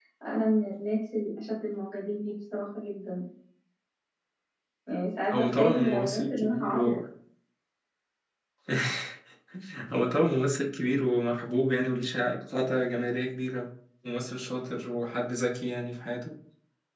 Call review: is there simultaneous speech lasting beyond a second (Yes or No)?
Yes